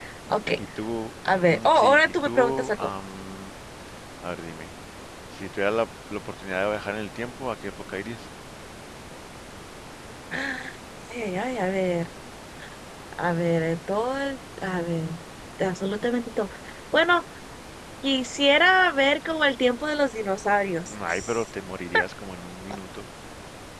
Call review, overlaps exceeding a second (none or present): present